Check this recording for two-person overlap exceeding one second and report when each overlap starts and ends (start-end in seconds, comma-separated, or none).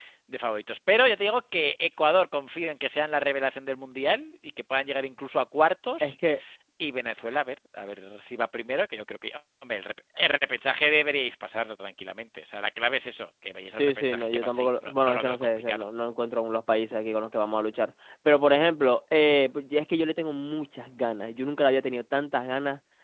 13.8-15.8